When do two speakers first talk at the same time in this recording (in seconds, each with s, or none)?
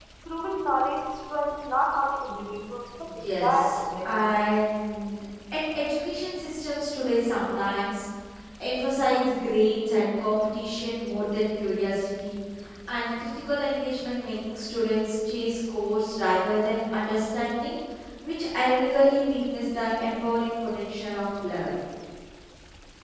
3.0 s